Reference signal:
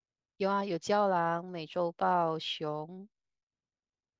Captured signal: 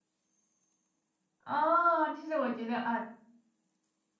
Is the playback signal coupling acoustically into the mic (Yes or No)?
No